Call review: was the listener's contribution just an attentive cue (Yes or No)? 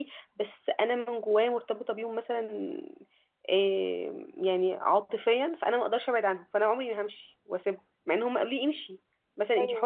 Yes